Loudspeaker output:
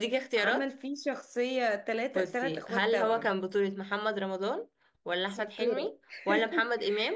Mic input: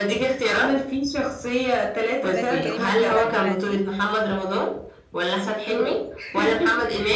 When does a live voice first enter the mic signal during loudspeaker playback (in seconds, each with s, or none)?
2.3 s